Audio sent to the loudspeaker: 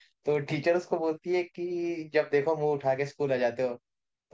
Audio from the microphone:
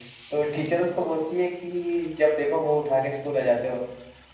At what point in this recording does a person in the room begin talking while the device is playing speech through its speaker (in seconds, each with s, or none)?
none